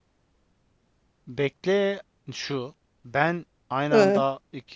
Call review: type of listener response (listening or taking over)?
listening